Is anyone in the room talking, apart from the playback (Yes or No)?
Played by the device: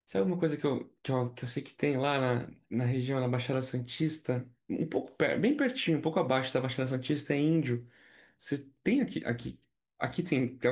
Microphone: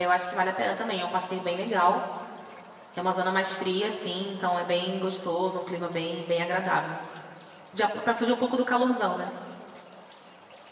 Yes